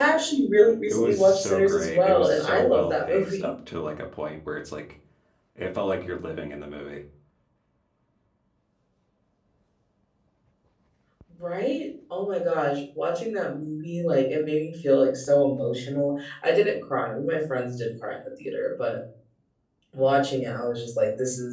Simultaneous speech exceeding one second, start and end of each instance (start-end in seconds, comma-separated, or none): 0.9-3.5